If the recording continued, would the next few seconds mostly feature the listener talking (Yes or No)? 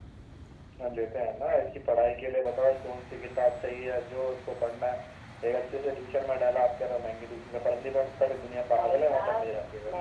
Yes